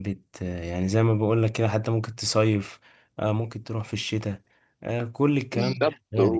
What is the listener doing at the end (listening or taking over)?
taking over